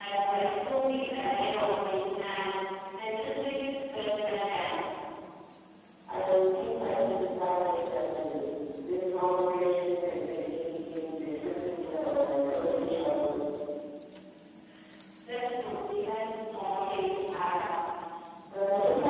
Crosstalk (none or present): none